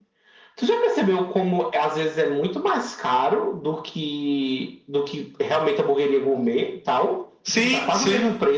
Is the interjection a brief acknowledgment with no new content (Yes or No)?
No